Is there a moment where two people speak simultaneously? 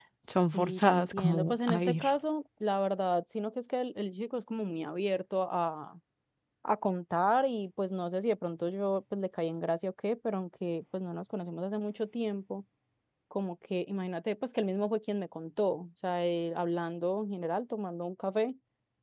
Yes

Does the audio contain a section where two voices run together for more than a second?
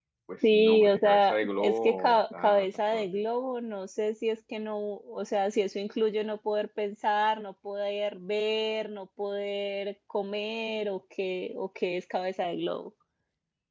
Yes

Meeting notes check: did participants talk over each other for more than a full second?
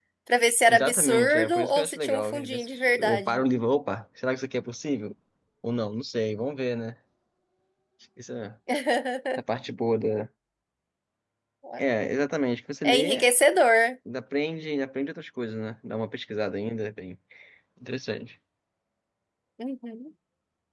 Yes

